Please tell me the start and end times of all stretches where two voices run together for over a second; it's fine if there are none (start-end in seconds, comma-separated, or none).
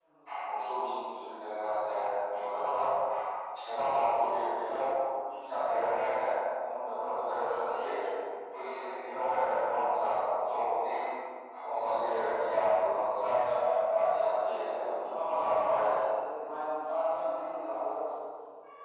14.4-15.9